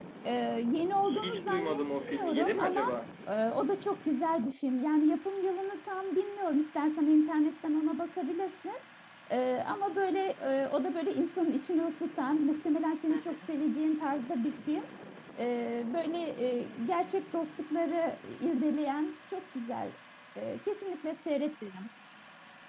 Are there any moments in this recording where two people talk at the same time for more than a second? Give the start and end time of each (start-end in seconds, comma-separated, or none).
1.1-2.8